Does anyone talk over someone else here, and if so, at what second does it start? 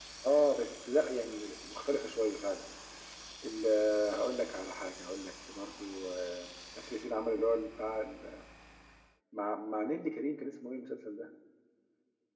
none

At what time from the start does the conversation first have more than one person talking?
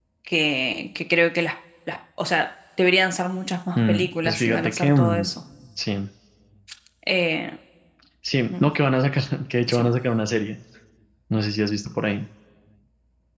4 s

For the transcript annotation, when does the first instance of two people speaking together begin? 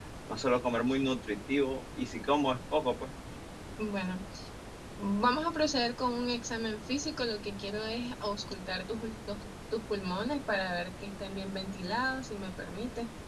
none

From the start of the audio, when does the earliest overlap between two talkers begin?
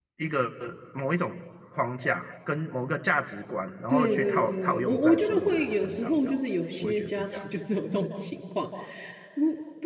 4 s

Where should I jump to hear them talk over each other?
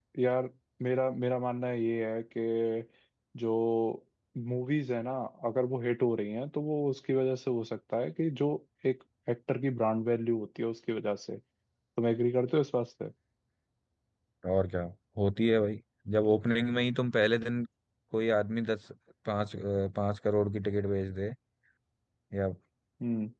none

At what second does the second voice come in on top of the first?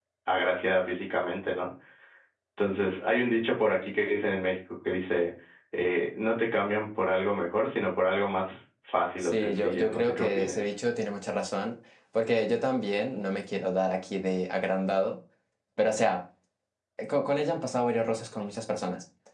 9 s

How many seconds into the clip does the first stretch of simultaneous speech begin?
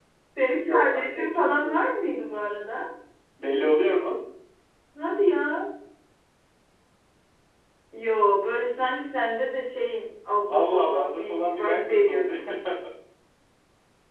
1 s

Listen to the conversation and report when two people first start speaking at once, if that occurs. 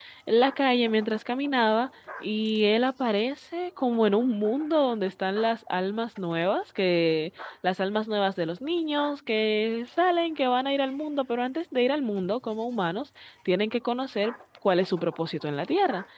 none

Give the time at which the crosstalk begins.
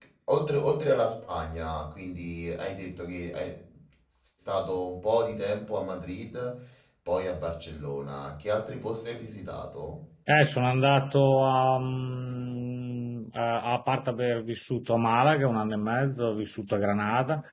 none

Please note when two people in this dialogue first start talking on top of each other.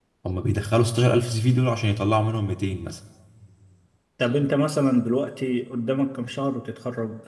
none

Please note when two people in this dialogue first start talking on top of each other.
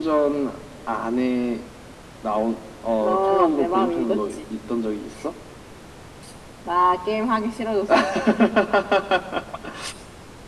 3 s

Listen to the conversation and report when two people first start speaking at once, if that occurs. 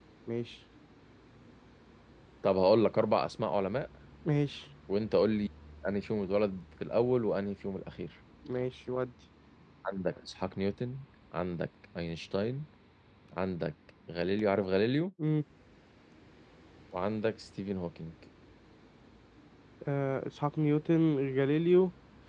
none

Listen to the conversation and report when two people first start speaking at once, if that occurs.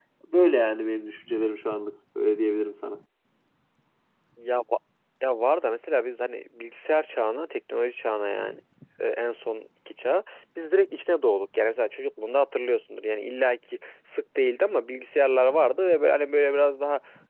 none

